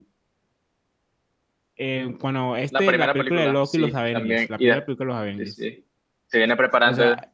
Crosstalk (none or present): present